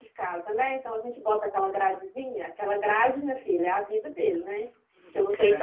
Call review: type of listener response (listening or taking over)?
listening